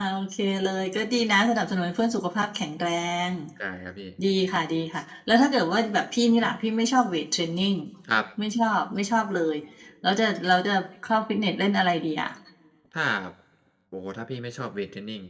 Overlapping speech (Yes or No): No